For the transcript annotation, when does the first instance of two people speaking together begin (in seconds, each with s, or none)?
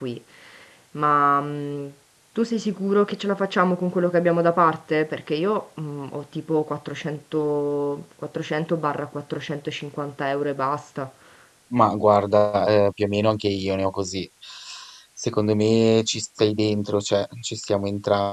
none